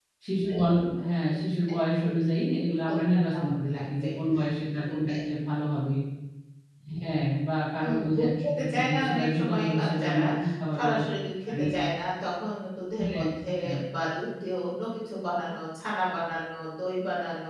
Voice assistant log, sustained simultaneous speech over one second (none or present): present